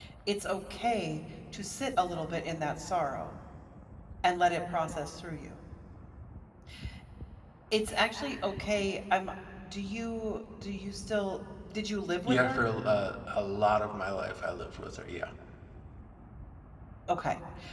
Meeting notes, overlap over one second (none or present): none